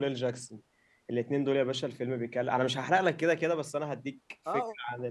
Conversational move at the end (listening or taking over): taking over